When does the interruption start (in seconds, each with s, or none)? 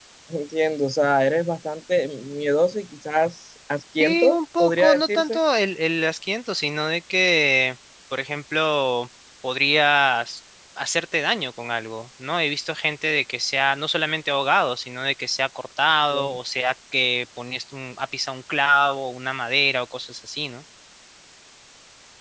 4.0 s